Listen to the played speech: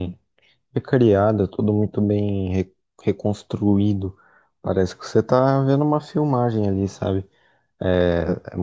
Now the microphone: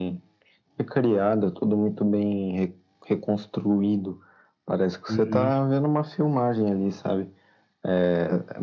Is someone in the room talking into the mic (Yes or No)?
Yes